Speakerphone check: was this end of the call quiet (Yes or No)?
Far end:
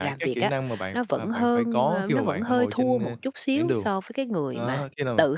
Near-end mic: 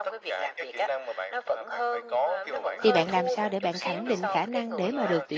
No